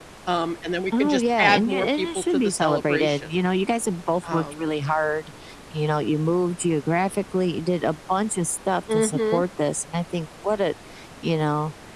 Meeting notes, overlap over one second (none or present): present